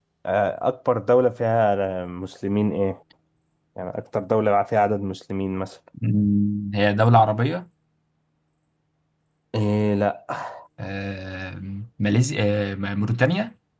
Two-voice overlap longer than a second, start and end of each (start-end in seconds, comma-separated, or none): none